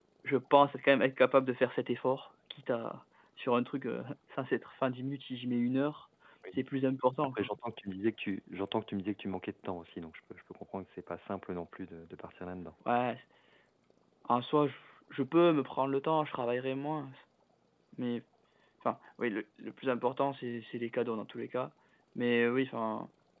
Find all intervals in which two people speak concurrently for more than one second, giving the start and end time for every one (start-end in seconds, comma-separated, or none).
none